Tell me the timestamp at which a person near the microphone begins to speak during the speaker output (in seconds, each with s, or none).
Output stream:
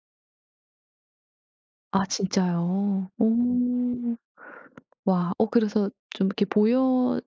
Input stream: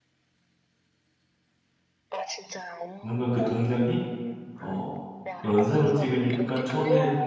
3.0 s